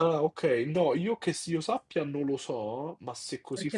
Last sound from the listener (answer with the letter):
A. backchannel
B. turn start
B